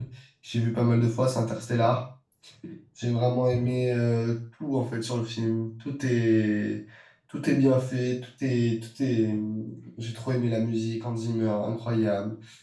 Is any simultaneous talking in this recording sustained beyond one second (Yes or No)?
No